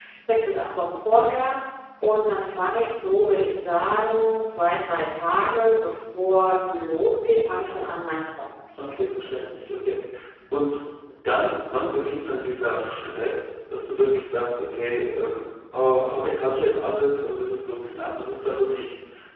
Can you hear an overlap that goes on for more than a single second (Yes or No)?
No